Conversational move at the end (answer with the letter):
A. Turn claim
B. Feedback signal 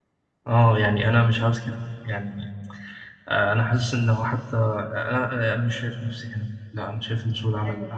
A